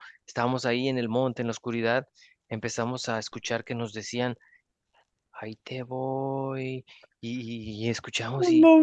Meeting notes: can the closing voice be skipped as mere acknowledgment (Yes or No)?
Yes